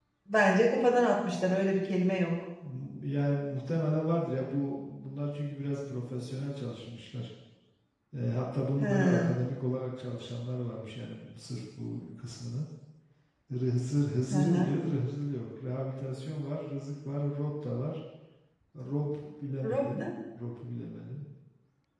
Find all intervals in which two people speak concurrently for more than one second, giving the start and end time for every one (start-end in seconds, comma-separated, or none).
none